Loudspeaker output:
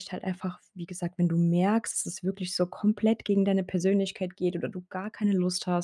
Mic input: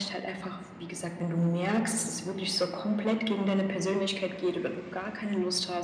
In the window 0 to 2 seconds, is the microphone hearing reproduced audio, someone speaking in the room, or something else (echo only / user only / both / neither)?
echo only